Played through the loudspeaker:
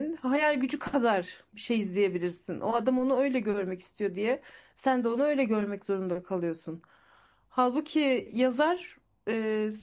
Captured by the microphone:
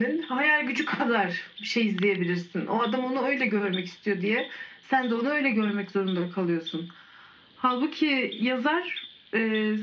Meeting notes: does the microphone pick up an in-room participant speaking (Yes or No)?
No